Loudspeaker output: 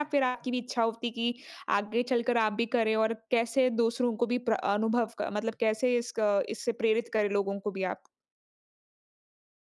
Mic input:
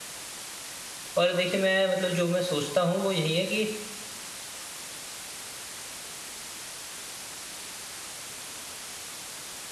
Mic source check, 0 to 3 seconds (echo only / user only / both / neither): user only